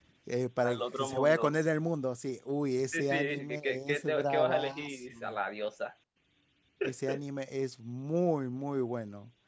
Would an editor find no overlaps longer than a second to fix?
No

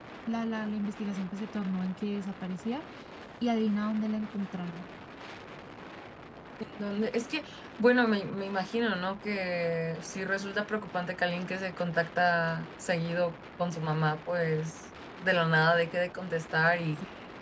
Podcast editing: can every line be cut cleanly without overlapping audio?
Yes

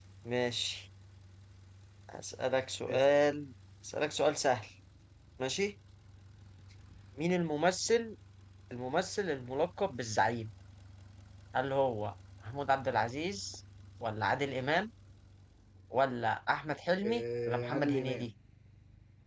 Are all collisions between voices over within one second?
No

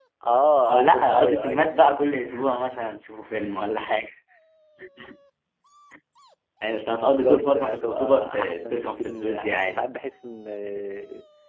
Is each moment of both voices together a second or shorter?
No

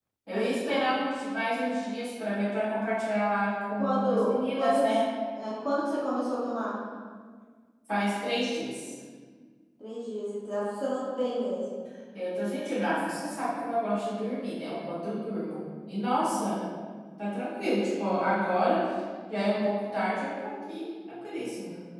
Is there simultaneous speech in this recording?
Yes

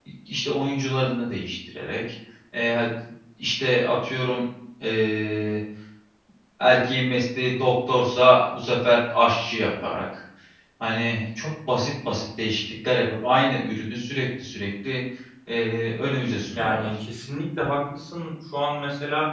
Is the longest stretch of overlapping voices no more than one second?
Yes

